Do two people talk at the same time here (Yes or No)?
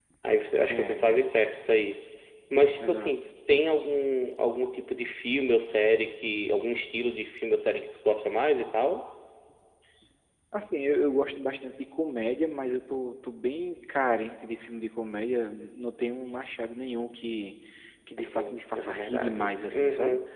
Yes